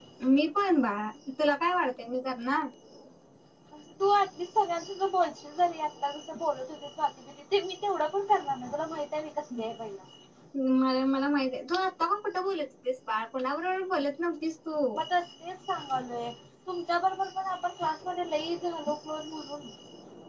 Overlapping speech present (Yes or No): No